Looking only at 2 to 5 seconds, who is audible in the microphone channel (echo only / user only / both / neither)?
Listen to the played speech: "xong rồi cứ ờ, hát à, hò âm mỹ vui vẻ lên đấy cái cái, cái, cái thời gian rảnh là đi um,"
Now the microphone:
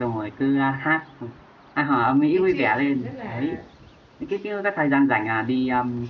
both